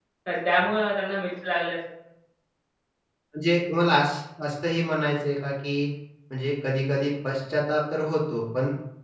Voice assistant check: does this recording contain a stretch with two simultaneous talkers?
No

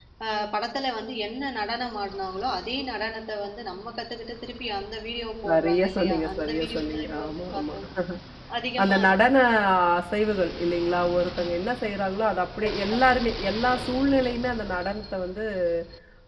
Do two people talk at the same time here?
Yes, from 5.5 s

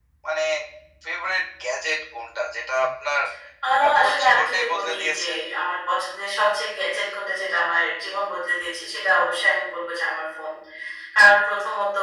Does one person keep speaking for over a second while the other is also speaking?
Yes, from 3.8 s

